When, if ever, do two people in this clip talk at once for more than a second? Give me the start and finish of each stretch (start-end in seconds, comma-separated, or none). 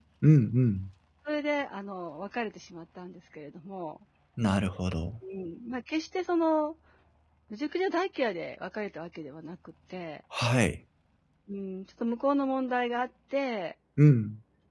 none